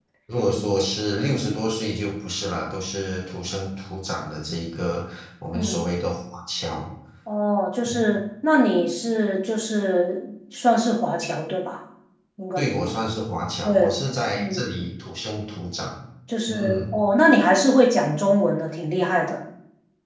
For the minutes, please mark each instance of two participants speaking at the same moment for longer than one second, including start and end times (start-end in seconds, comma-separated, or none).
none